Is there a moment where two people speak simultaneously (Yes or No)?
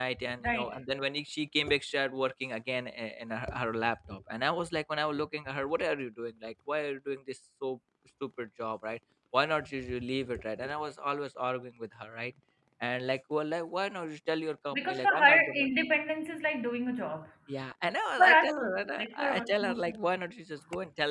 Yes